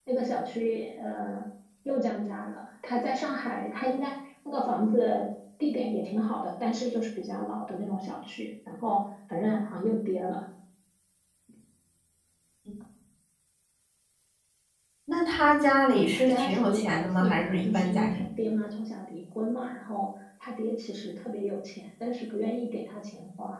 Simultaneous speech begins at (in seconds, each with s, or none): 15.9 s